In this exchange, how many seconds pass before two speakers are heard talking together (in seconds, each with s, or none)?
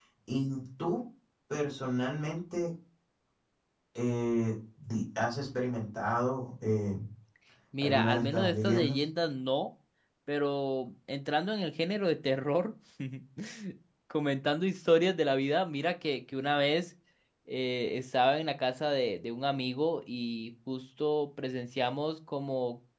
7.8 s